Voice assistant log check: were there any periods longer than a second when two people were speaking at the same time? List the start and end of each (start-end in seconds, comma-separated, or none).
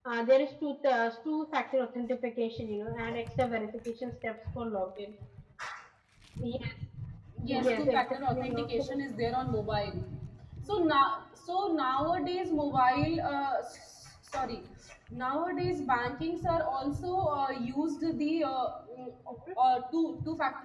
7.5-8.8